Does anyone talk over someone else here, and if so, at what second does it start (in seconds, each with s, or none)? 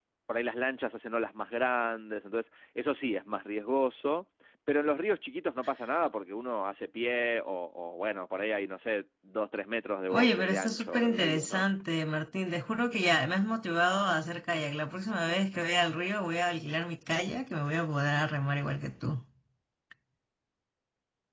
10.1 s